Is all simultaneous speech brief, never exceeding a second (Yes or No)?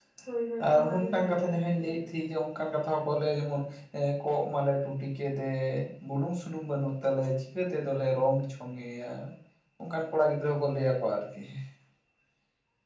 No